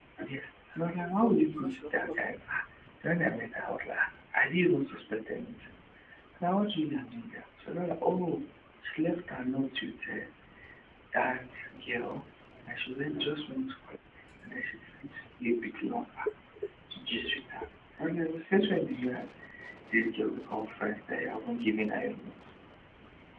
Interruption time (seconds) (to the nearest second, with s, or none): 1 s